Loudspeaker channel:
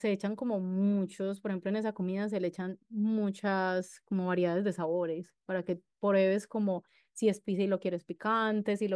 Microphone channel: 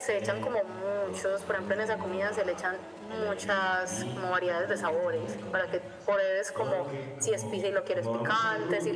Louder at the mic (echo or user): echo